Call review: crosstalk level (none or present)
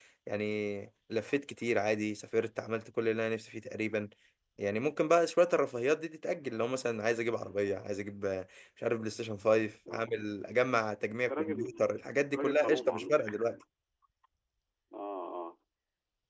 present